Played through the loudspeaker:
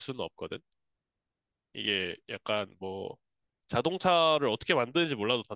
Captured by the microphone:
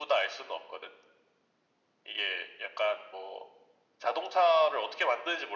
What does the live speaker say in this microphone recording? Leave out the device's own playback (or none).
none